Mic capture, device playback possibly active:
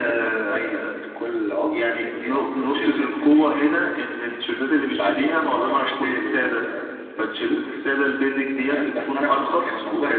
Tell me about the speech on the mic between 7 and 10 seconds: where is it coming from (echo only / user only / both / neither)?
echo only